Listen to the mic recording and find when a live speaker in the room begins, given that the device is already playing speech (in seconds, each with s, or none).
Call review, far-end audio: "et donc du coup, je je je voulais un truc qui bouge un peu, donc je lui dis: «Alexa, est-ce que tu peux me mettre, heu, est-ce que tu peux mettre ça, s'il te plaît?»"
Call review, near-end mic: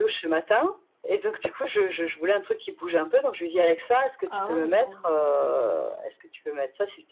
4.2 s